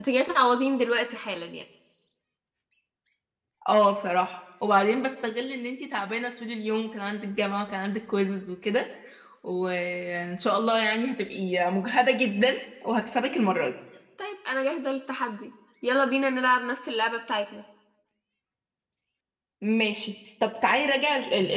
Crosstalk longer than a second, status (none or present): none